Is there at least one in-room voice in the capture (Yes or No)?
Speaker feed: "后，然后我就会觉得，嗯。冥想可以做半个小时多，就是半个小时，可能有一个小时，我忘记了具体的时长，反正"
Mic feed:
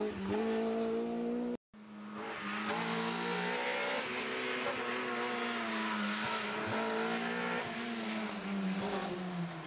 No